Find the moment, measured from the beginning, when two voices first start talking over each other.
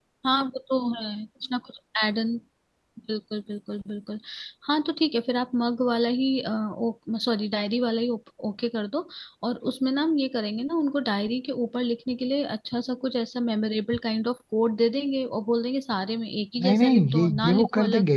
16.6 s

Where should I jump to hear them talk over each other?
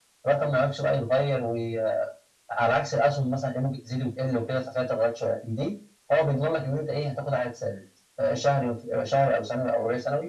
none

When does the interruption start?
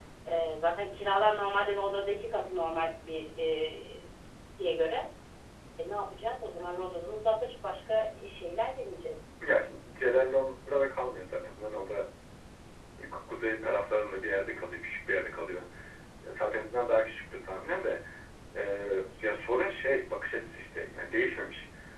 none

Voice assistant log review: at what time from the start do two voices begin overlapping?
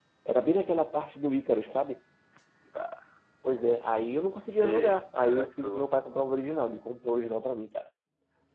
4.5 s

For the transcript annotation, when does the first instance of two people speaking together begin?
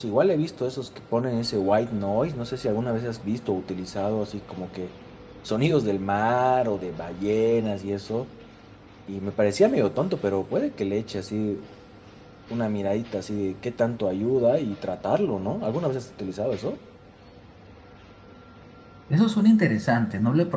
none

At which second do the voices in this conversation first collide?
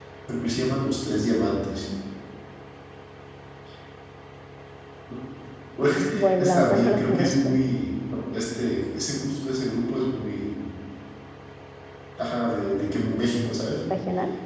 5.8 s

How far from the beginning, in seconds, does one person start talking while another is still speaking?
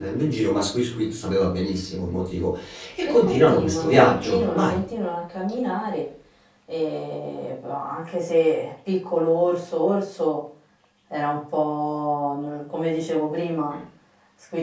3.0 s

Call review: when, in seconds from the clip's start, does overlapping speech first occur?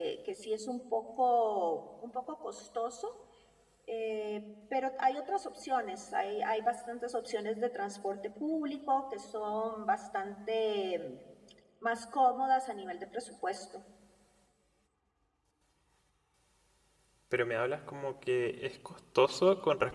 none

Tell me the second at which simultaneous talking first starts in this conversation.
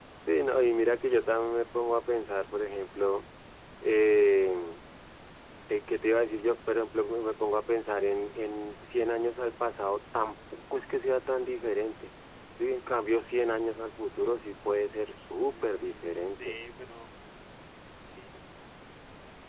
15.3 s

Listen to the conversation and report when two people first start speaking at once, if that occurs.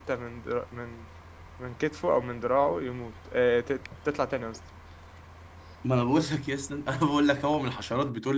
none

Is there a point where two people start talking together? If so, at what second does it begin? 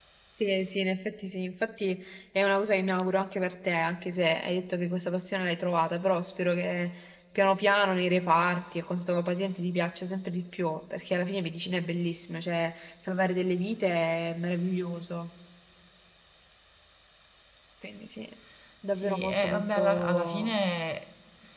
18.9 s

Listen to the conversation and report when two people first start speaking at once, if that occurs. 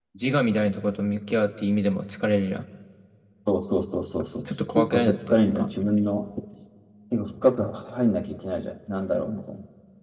4.4 s

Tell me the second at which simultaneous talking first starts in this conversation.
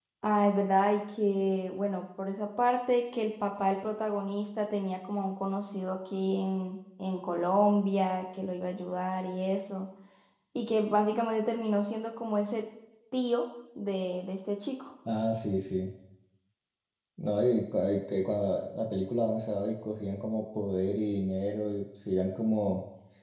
none

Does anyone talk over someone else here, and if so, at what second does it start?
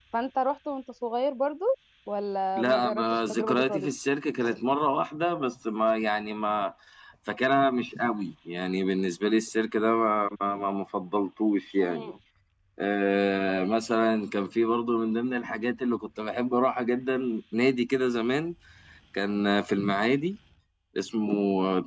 2.6 s

